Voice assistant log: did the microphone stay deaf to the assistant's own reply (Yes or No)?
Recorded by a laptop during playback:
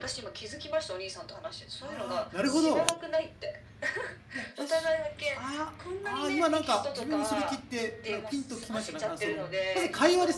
No